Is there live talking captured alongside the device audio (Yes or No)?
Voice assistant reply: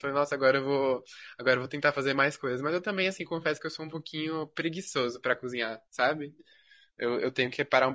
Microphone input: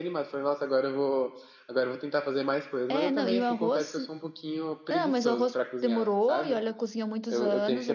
Yes